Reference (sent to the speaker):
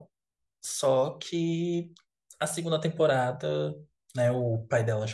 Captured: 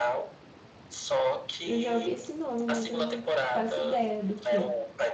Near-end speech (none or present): present